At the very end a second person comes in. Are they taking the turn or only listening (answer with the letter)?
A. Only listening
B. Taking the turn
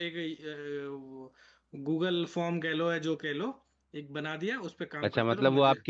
B